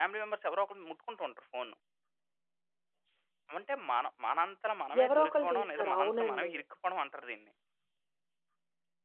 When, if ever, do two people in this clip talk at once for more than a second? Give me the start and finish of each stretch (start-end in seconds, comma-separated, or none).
5.0-6.5